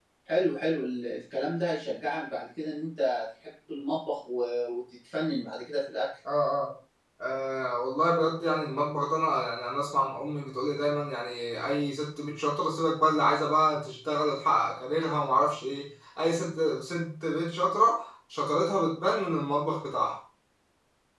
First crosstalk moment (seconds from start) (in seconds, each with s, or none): none